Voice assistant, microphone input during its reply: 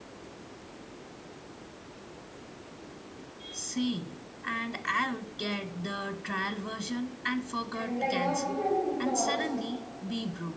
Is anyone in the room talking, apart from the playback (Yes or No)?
Yes